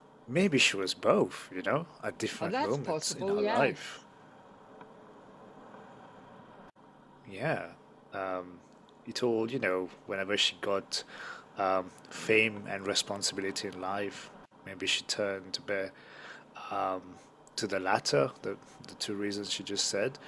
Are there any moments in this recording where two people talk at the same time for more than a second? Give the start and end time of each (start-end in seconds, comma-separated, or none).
2.4-3.8